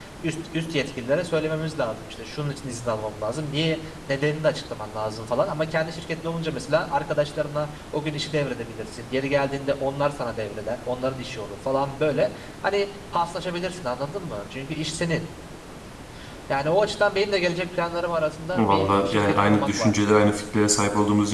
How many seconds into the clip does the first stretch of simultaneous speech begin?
19 s

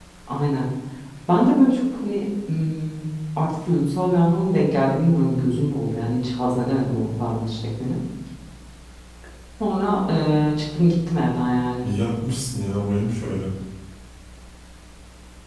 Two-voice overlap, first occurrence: none

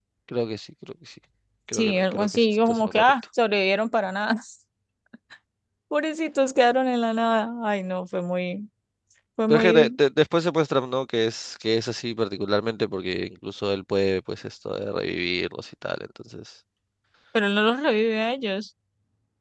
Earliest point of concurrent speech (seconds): 2 s

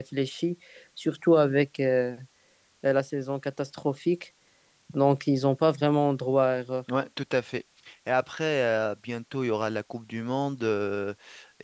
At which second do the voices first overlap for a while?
none

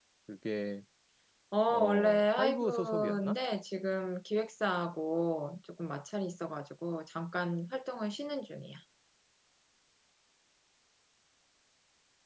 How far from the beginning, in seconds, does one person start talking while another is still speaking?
2 s

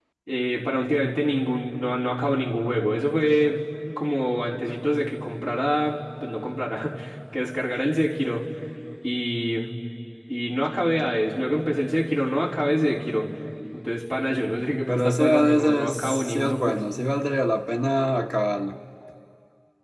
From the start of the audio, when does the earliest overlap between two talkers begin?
15 s

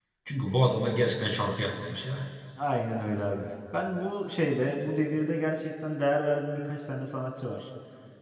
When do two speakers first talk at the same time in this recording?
none

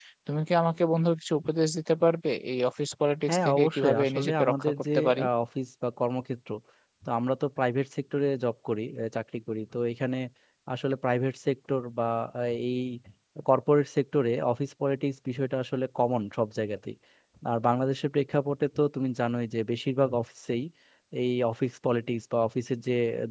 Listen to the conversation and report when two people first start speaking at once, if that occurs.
3 s

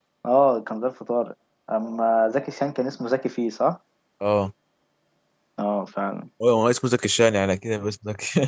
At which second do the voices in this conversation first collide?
none

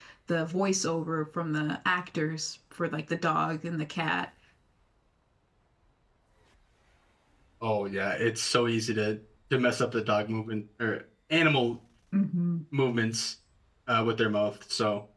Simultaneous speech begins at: none

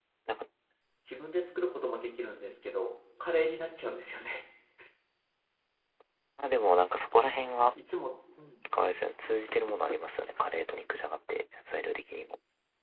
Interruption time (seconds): none

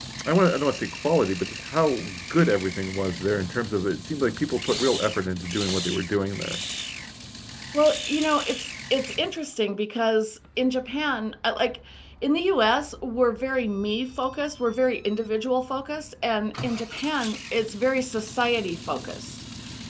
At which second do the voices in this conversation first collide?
none

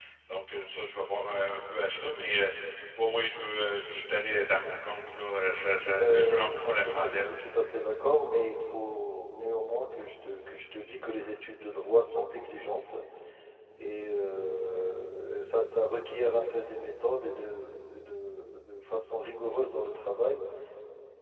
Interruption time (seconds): 6 s

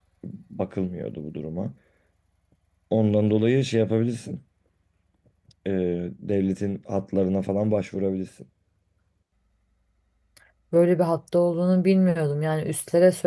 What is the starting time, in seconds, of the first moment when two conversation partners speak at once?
none

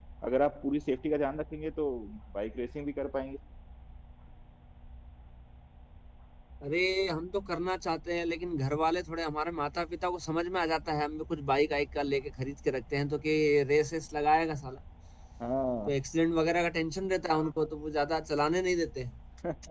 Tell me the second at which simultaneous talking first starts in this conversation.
none

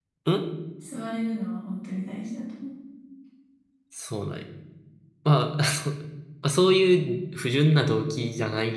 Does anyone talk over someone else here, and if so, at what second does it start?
none

